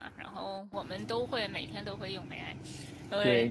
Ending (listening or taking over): taking over